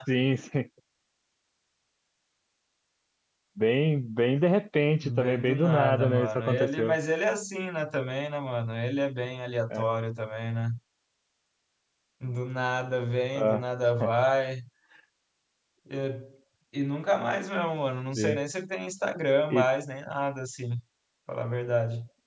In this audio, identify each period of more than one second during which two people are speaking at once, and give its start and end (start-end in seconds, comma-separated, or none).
5.0-7.0